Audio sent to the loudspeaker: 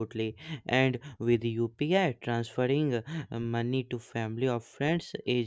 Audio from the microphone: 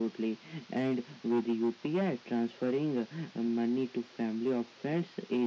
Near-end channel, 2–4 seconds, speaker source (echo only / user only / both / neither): echo only